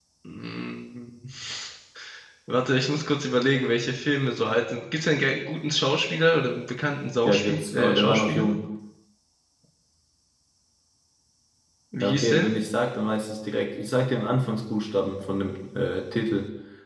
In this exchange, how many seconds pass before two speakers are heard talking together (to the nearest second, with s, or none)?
7 s